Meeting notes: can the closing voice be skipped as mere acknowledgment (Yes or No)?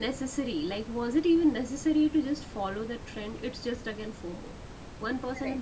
Yes